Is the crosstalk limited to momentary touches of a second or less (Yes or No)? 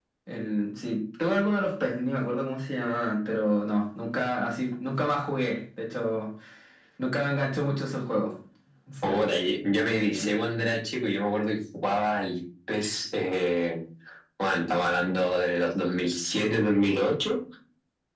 Yes